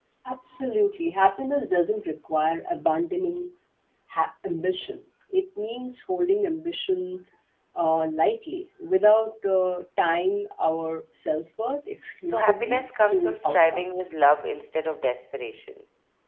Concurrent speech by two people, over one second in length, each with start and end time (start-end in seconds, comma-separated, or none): 12.2-14.1